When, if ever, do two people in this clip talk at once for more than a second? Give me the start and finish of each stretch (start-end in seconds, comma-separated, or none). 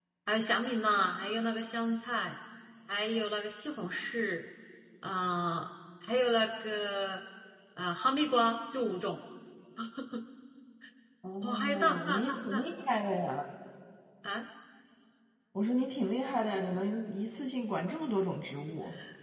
11.4-12.7